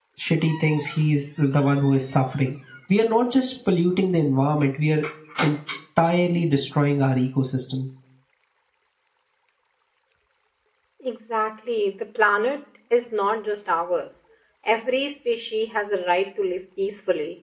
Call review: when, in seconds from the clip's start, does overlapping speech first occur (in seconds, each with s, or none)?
none